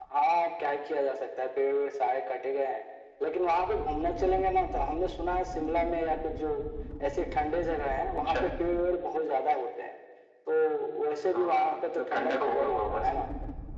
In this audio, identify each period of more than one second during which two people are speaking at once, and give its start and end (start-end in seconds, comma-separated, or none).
11.3-13.0